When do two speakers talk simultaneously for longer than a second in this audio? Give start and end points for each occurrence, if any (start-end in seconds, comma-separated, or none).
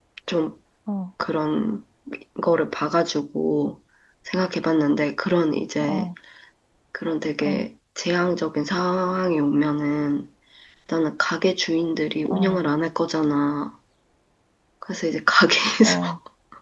none